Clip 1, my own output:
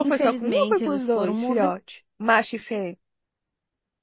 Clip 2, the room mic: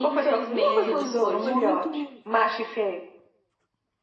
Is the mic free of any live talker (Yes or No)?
No